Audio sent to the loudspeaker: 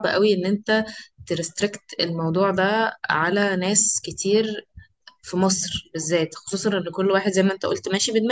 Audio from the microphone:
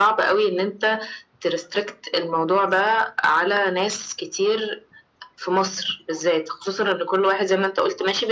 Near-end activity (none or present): none